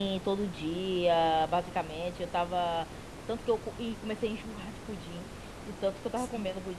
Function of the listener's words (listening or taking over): listening